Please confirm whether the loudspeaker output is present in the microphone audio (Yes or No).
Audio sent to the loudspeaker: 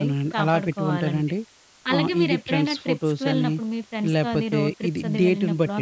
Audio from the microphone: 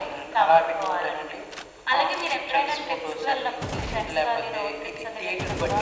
Yes